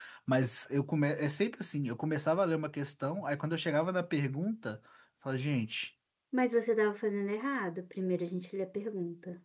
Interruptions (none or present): none